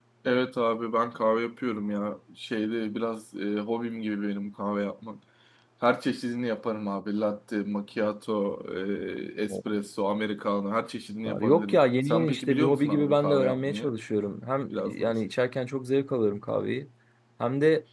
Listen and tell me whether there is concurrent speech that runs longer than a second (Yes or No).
Yes